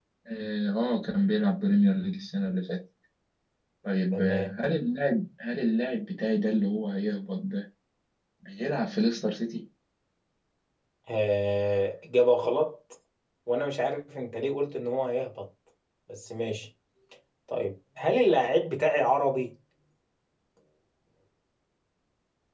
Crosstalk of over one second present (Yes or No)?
No